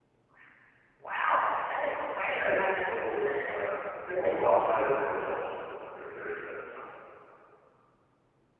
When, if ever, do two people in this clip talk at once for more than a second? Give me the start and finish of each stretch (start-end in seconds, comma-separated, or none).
2.2-3.5